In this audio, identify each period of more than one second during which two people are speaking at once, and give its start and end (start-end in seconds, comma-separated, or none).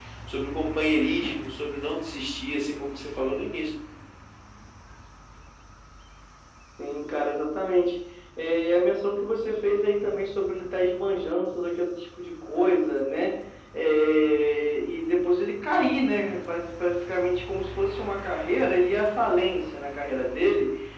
none